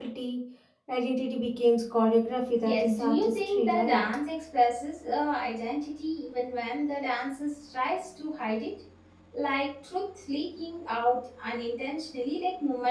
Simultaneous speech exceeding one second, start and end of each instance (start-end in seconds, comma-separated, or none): 2.6-4.0